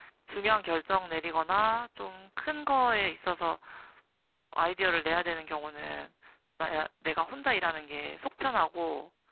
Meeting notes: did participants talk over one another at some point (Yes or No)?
No